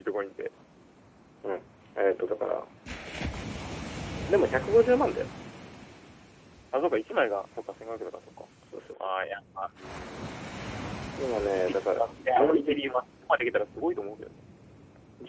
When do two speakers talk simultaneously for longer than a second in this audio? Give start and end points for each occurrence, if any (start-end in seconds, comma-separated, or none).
11.5-12.8